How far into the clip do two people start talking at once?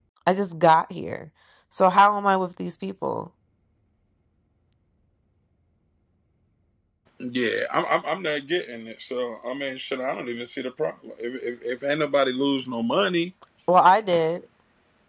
none

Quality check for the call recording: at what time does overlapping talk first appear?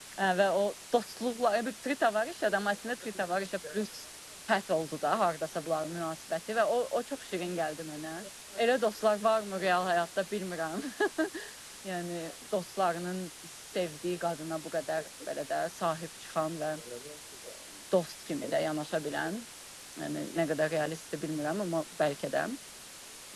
none

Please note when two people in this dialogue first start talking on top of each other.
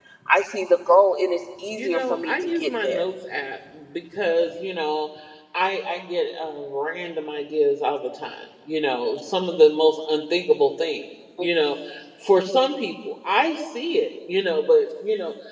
1.8 s

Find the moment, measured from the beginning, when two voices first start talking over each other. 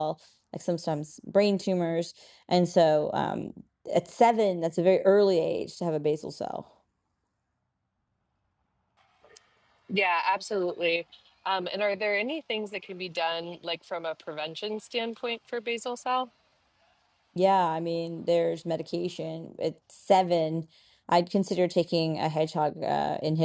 none

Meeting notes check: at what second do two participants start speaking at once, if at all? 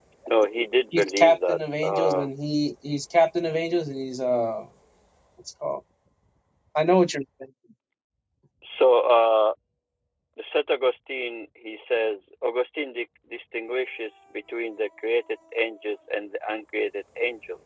0.9 s

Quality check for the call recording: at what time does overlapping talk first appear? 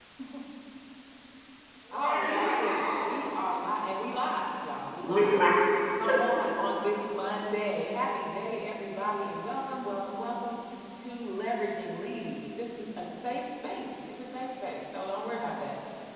1.9 s

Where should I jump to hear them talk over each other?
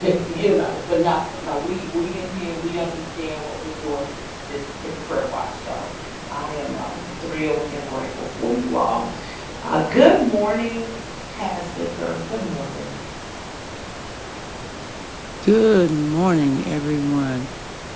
none

